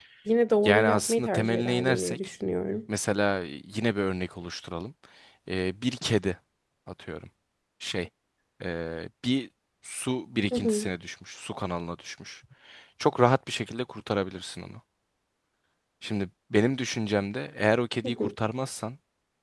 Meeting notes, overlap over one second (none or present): present